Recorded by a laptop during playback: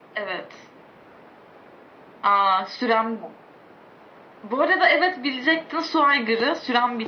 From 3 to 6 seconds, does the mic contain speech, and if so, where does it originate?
echo only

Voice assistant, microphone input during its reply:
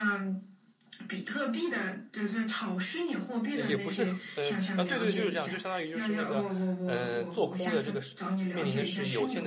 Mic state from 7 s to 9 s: both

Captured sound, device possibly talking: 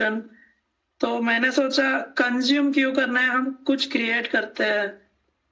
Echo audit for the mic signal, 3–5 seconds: echo only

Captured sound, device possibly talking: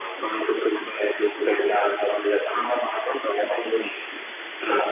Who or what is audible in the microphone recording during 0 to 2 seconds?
echo only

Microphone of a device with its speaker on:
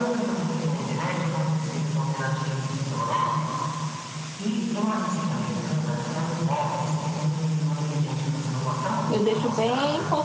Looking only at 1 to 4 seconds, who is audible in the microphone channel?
echo only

